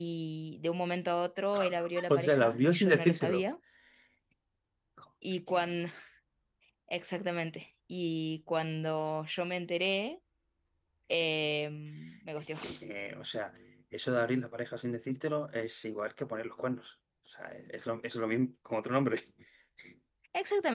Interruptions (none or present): present